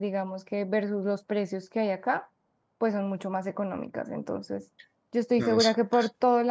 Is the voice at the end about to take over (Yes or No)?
No